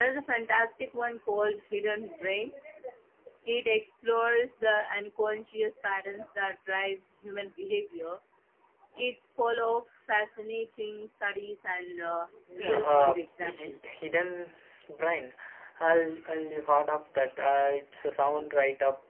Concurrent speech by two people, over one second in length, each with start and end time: 12.6-13.8

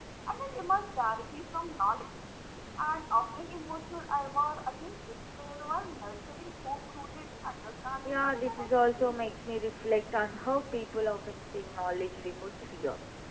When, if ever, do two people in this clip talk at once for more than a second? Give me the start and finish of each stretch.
8.0-9.3

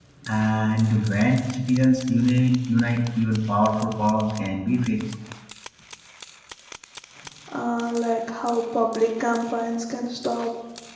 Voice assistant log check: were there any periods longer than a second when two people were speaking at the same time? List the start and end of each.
none

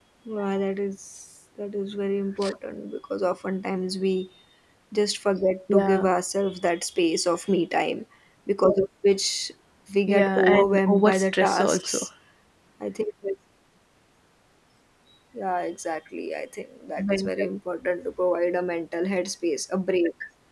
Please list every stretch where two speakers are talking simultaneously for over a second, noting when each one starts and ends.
10.1-12.0

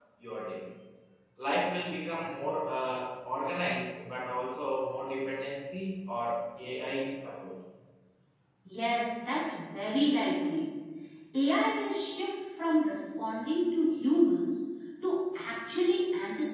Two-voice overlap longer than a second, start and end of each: none

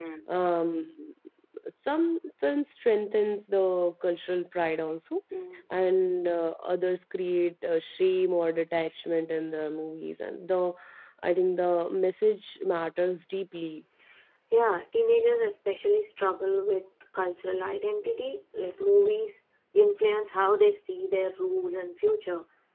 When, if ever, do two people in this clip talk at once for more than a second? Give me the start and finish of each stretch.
none

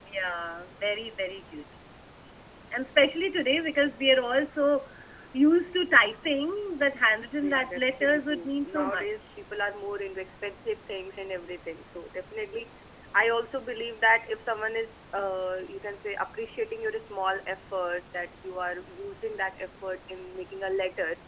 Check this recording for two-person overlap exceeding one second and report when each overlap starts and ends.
7.4-9.2

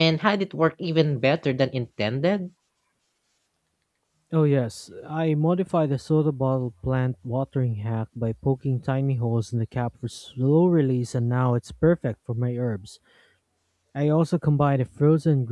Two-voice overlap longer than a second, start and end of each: none

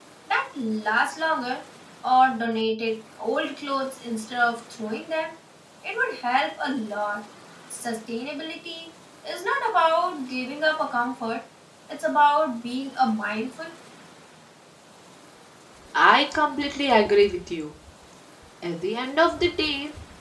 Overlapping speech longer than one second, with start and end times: none

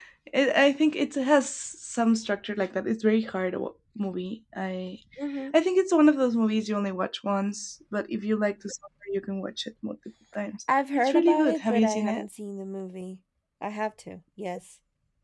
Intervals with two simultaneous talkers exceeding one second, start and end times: 11.0-12.2

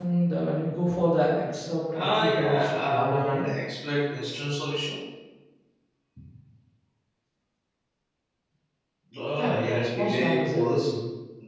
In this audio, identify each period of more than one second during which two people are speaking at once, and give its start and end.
1.9-3.5, 9.4-10.9

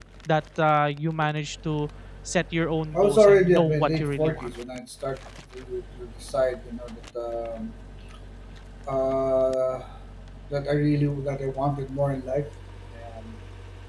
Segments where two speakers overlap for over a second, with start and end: 2.9-4.5

